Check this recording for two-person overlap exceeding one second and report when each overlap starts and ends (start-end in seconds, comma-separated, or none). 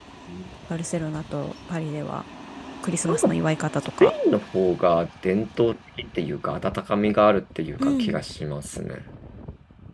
none